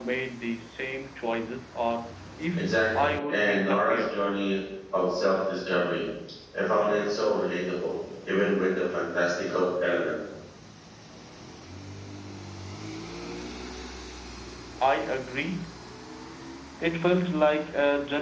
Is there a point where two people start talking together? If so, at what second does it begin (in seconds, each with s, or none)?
2.5 s